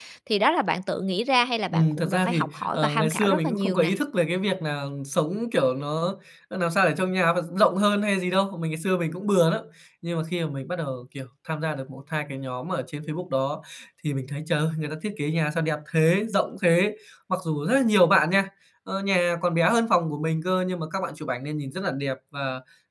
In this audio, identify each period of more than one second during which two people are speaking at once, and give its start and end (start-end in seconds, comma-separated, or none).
1.7-3.9